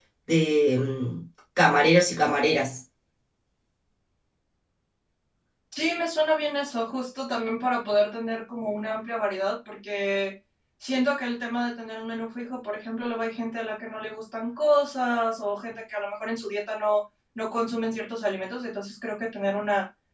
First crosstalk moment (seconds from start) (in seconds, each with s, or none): none